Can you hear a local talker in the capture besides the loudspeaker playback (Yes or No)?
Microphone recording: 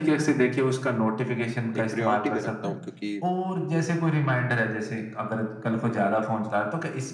Yes